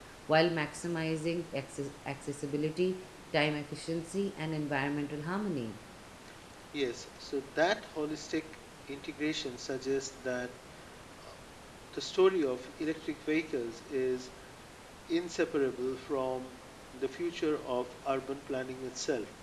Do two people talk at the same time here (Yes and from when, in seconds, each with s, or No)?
No